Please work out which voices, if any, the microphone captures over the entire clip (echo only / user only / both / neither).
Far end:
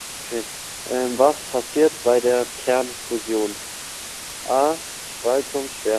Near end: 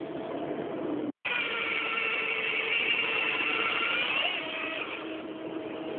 neither